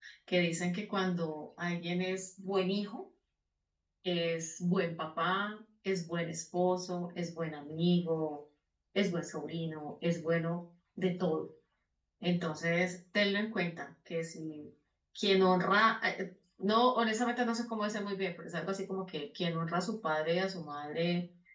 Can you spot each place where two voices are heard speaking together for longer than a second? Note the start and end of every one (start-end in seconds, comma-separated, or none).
none